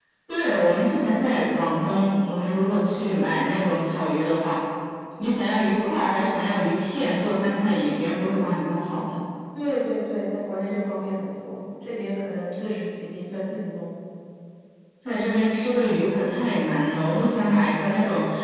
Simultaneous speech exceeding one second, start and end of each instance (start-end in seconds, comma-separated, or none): none